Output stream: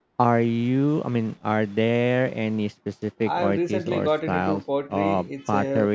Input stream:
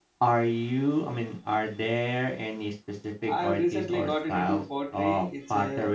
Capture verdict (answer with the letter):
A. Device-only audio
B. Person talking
A